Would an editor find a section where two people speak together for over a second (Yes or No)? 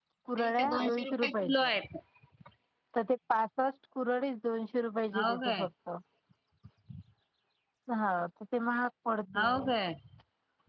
Yes